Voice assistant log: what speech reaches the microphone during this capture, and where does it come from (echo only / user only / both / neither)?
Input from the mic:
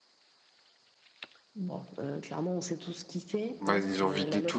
both